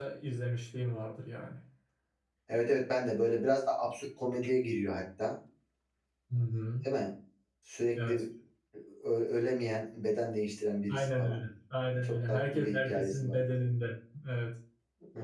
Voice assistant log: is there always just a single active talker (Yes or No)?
No